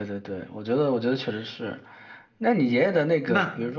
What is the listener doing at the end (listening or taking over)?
listening